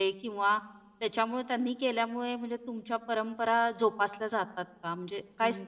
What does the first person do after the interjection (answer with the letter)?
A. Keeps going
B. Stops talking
B